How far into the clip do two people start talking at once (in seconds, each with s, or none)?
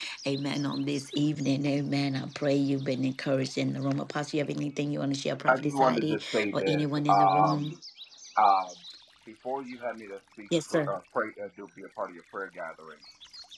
5.5 s